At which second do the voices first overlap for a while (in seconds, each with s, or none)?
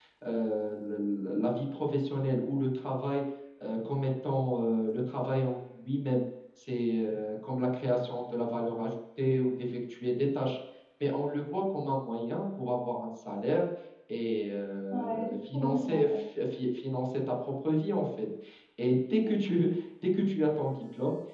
14.9 s